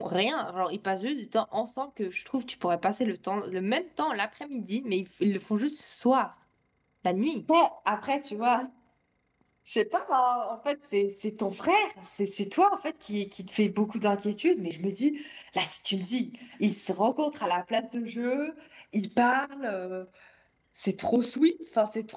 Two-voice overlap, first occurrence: none

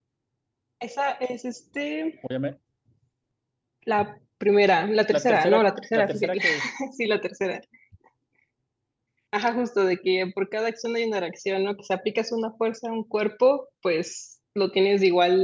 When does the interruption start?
5.1 s

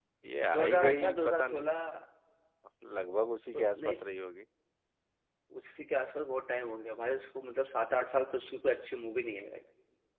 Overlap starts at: 0.6 s

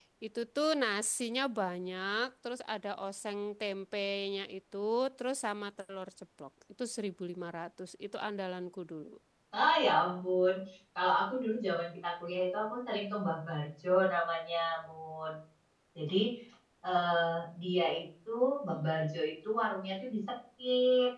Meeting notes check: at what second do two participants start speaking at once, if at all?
none

